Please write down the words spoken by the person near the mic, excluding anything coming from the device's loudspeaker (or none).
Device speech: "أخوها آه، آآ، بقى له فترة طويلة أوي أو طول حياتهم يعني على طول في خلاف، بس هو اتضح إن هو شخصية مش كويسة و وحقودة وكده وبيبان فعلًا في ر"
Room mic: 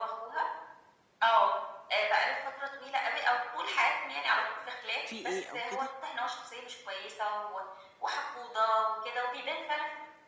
في إيه أو كده؟